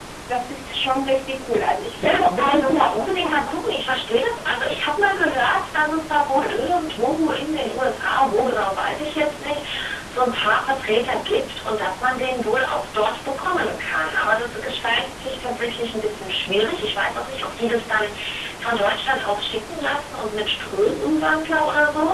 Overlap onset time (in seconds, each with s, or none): 2.0 s